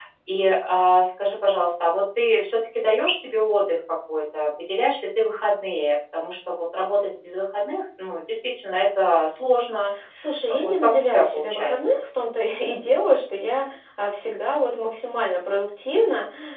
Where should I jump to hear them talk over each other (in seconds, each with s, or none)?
10.6 s